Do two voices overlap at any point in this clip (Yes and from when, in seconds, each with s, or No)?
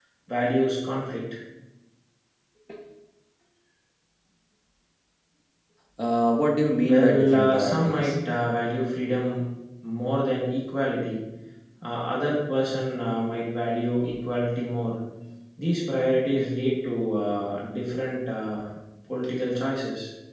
Yes, from 6.8 s